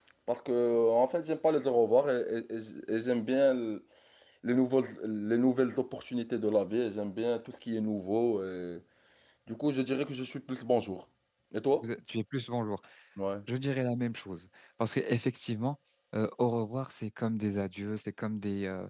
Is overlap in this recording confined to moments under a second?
Yes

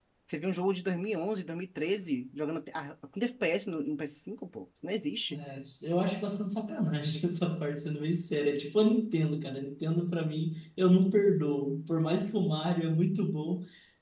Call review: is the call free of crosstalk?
Yes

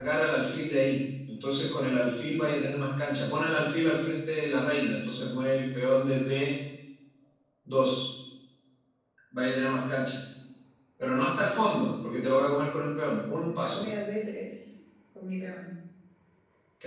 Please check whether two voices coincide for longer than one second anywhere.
No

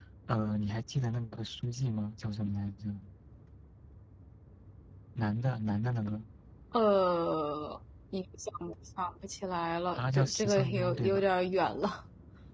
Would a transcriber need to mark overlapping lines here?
Yes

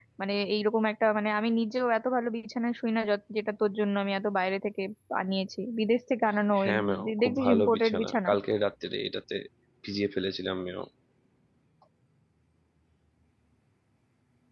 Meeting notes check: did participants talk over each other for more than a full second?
Yes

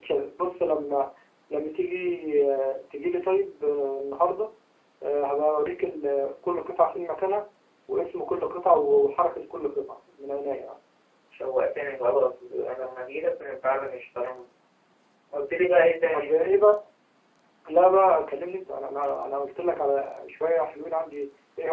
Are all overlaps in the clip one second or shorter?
Yes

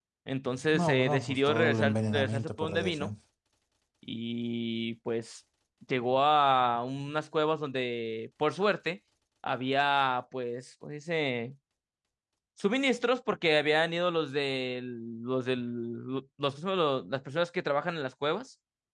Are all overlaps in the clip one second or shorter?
No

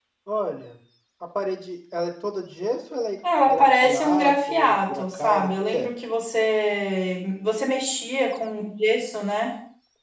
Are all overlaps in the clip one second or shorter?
No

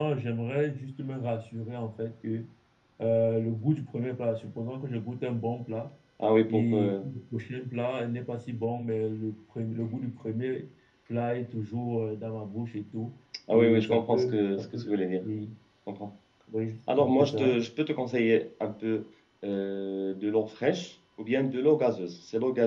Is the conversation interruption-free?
No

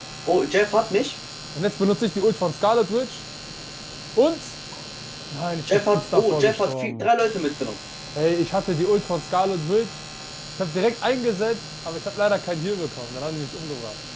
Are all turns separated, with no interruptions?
No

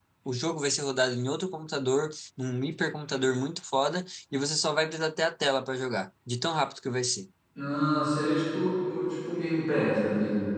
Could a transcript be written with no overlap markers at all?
Yes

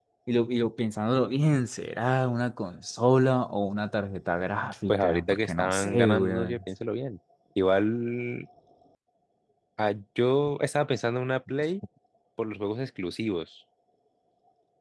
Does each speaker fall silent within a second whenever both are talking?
No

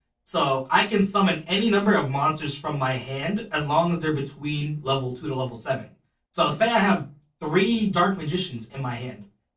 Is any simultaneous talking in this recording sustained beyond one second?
No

